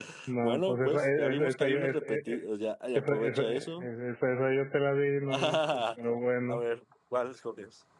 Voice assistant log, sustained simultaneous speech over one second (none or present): present